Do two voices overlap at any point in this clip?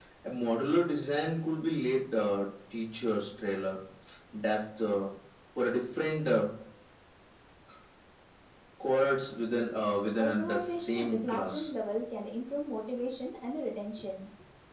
Yes, from 10.2 s

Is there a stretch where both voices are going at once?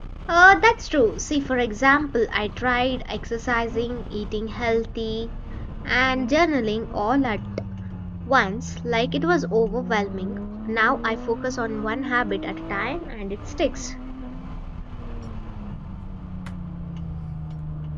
No

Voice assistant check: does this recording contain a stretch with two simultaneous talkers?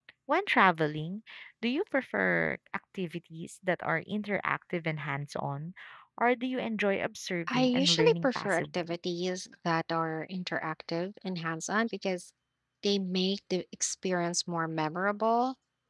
Yes, from 7.5 s

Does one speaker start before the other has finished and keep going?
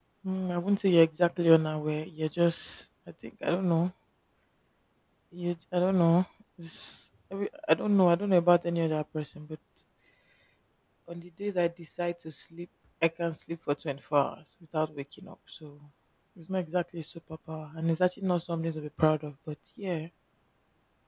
No

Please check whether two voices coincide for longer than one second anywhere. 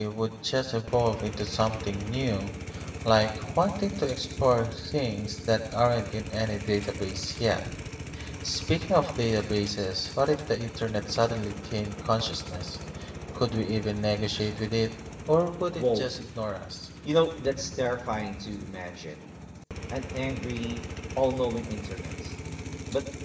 No

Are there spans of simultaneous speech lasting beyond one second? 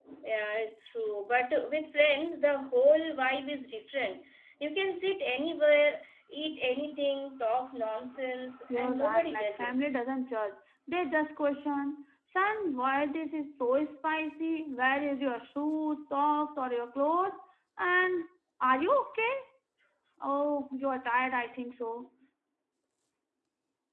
Yes, from 8.7 s

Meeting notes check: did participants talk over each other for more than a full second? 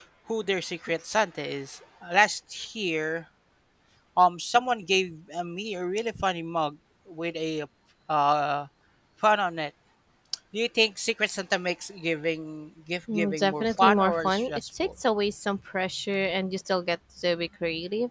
Yes, from 13.1 s

